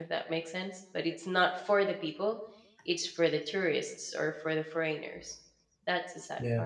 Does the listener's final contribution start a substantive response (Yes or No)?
Yes